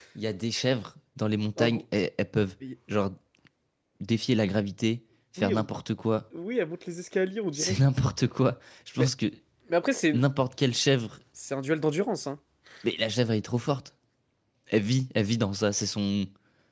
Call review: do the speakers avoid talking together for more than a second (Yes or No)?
Yes